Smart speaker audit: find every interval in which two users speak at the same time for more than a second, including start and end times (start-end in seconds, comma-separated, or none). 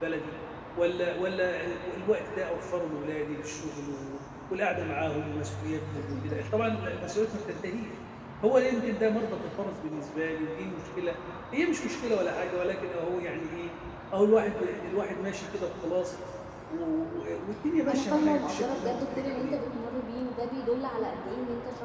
17.9-19.6